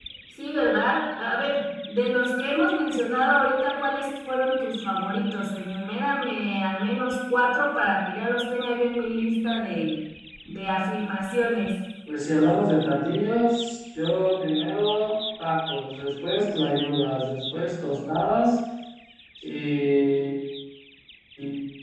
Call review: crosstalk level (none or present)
none